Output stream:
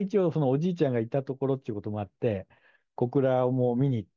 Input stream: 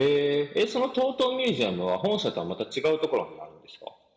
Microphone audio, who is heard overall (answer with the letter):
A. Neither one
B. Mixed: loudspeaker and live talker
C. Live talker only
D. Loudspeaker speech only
C